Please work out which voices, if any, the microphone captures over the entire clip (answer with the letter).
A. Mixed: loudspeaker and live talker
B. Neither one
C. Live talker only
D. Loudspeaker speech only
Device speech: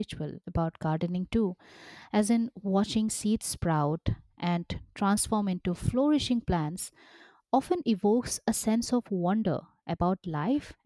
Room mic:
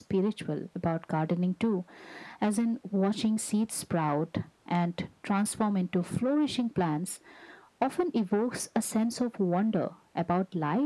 D